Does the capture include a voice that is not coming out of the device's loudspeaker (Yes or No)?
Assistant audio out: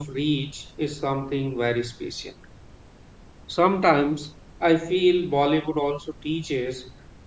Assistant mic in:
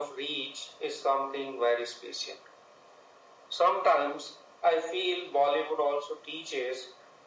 No